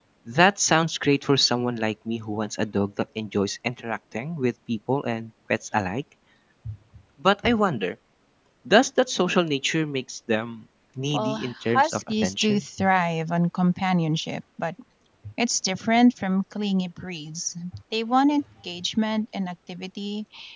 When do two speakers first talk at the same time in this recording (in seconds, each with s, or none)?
11.1 s